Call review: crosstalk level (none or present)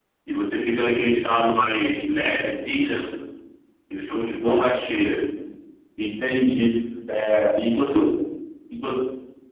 none